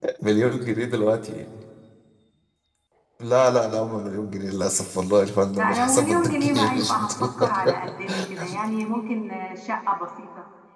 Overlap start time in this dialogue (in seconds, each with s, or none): 5.6 s